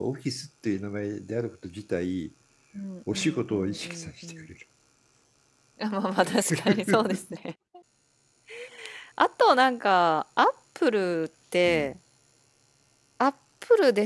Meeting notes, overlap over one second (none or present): present